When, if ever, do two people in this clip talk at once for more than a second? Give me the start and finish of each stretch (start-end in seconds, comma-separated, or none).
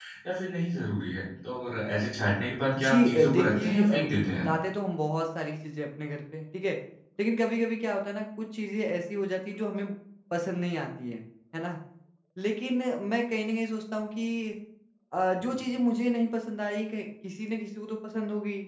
2.8-4.0